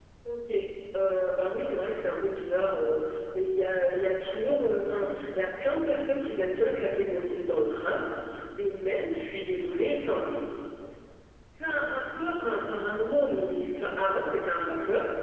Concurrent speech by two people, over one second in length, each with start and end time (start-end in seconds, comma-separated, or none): none